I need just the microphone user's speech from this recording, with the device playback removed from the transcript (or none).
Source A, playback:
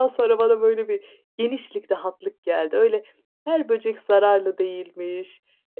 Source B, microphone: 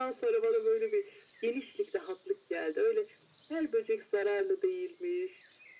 none